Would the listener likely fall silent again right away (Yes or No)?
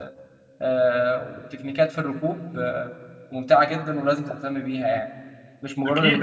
No